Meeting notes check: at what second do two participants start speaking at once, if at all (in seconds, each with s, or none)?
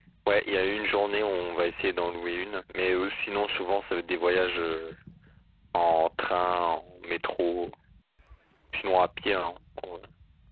none